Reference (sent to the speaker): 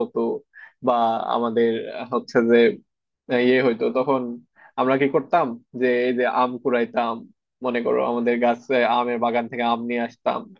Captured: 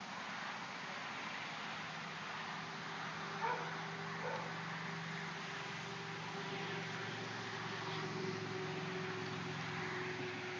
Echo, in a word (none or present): none